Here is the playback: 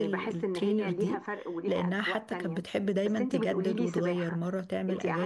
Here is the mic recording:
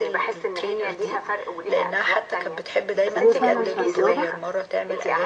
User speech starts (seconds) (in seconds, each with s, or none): 3.1 s